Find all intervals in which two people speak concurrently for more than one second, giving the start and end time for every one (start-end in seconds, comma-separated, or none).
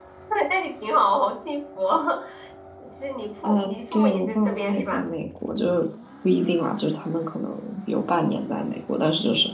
3.4-5.0